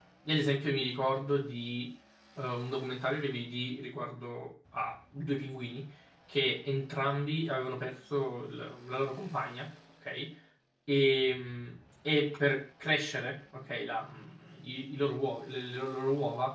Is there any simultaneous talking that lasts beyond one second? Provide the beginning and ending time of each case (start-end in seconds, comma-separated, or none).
none